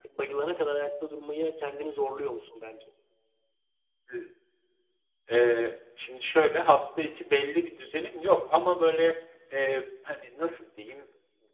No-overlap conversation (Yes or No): Yes